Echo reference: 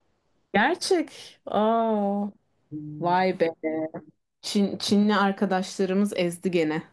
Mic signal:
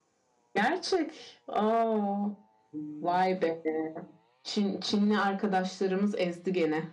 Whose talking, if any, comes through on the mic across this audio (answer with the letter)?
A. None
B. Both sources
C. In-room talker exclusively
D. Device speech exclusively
D